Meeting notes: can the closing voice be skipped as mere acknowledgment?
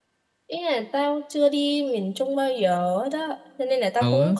Yes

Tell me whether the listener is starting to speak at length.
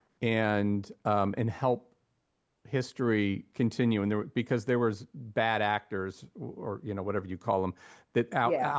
No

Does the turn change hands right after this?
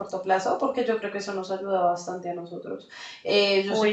No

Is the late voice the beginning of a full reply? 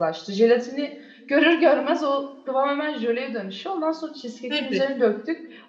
No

